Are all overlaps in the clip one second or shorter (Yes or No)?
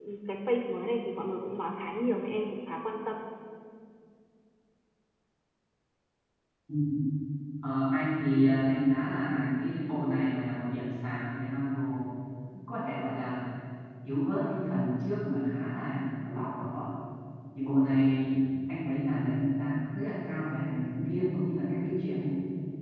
Yes